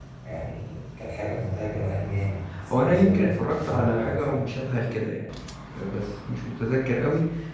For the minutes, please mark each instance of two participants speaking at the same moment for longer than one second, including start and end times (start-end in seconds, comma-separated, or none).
2.8-4.5